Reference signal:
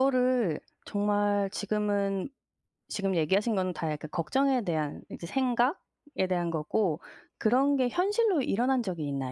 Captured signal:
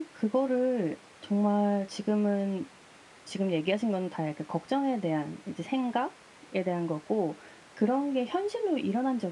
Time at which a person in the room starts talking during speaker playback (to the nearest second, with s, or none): none